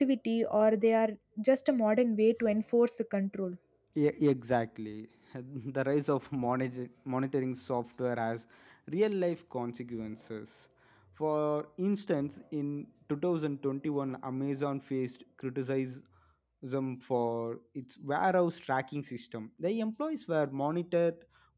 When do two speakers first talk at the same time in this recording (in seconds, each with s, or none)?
none